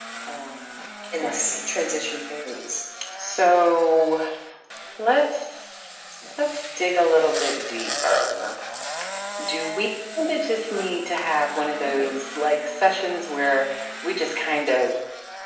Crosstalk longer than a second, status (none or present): none